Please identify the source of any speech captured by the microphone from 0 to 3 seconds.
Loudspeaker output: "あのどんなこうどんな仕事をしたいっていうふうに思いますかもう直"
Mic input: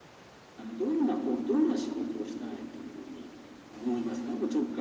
echo only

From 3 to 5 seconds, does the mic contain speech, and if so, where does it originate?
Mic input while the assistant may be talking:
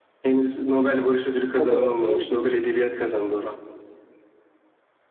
echo only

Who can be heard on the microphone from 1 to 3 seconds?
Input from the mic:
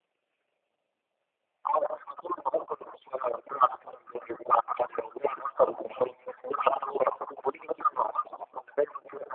echo only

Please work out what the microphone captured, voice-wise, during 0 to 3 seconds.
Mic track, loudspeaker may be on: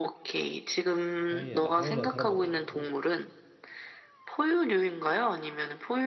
both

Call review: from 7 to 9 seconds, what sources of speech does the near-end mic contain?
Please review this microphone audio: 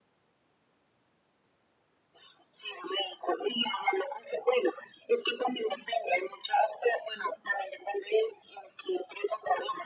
echo only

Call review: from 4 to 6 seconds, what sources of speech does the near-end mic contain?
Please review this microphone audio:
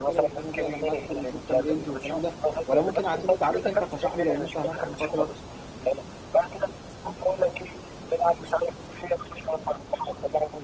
both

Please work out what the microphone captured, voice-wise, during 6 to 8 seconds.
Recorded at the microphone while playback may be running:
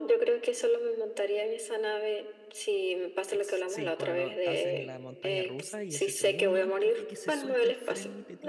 both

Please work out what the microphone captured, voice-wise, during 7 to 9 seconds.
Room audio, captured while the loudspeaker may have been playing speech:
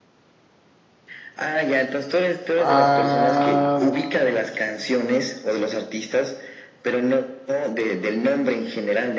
echo only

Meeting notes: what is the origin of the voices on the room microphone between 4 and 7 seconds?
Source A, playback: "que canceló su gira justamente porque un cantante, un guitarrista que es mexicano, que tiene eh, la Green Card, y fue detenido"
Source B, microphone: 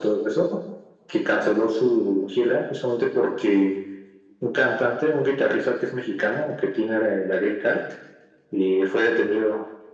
echo only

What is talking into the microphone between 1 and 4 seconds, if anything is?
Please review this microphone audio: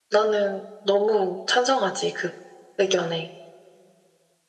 echo only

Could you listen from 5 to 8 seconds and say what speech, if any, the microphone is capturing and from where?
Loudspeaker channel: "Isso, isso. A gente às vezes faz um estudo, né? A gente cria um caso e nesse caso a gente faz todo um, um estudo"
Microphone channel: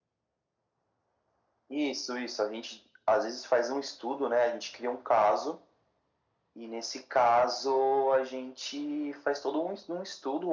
echo only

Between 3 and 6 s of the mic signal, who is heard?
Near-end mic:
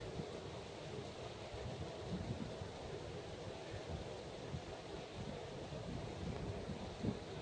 neither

